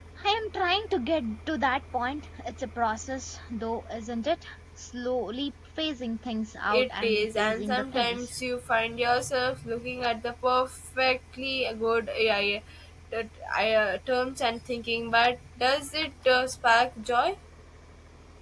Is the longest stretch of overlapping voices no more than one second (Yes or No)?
No